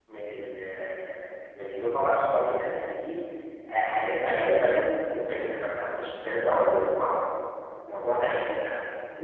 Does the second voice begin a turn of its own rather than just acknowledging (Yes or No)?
No